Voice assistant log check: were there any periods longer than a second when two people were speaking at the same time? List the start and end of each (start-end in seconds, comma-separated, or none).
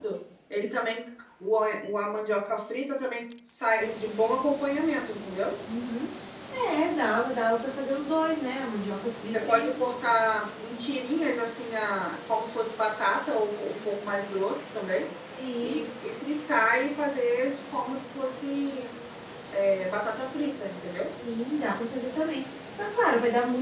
none